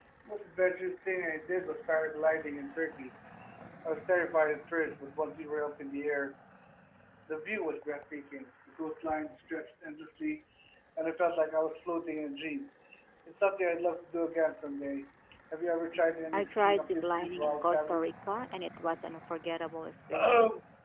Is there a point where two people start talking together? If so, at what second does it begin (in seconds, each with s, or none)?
16.3 s